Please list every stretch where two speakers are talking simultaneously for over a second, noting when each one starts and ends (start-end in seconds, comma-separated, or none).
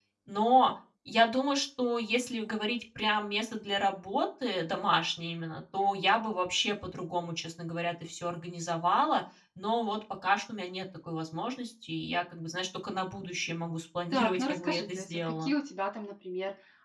14.1-15.5